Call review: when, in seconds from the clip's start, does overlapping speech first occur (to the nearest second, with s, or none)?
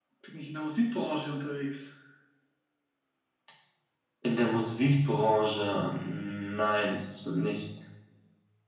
none